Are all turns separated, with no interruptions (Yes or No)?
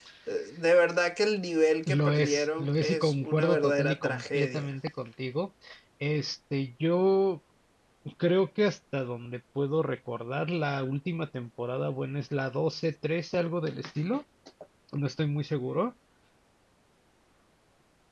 No